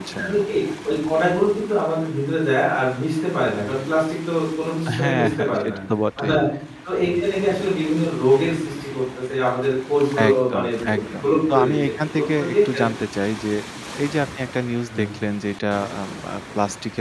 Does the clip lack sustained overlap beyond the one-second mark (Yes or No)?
No